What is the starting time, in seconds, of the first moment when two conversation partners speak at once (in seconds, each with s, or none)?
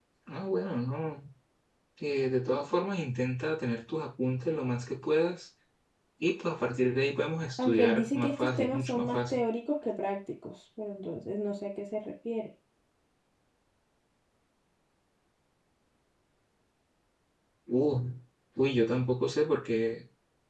7.6 s